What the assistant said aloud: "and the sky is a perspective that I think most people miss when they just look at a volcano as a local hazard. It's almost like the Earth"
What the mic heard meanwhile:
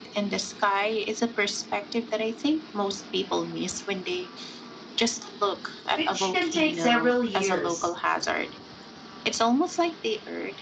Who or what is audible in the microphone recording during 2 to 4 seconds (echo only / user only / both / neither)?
echo only